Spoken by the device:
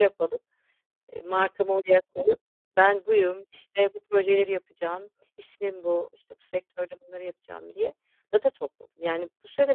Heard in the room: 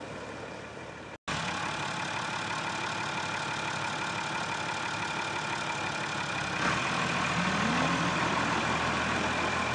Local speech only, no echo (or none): none